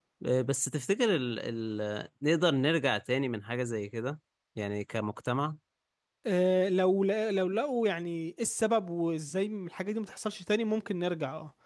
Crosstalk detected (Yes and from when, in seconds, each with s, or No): No